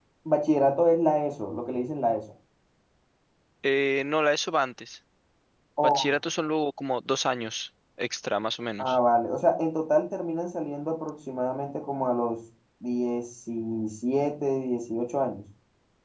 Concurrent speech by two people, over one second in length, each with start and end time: none

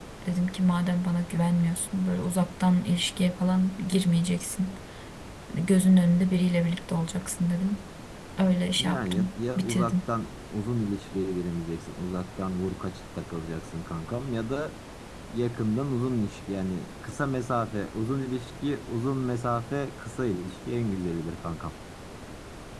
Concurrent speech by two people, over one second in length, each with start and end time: 8.8-10.0

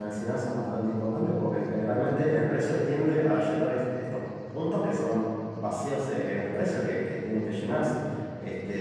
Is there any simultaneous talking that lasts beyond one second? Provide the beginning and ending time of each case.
none

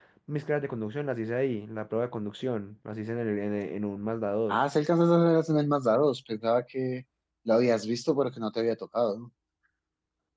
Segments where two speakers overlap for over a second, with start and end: none

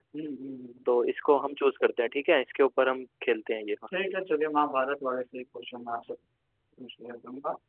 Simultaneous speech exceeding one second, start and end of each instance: none

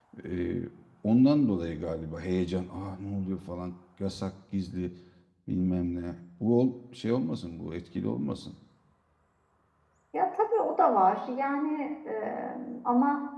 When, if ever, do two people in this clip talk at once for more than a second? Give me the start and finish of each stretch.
none

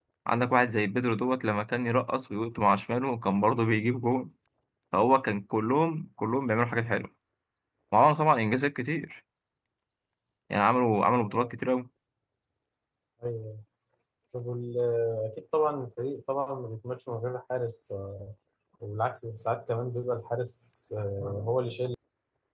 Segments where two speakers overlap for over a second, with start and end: none

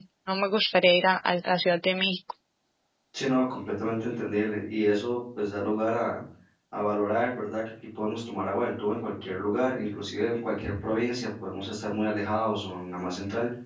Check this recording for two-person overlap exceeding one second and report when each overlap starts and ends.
none

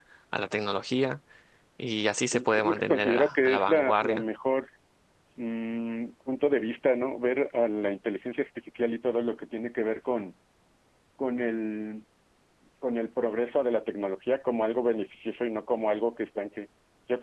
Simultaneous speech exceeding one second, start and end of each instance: 2.3-4.2

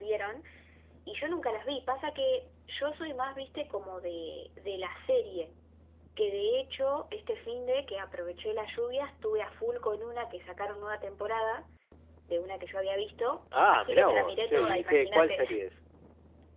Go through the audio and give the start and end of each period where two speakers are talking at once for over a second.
13.7-15.4

